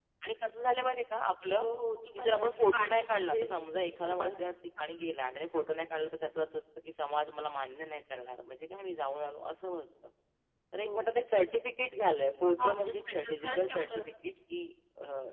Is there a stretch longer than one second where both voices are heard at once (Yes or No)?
Yes